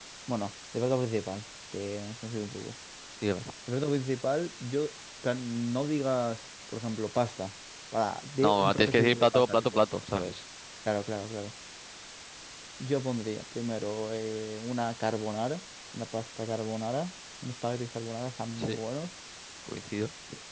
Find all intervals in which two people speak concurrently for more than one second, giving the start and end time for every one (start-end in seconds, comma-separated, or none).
8.4-9.8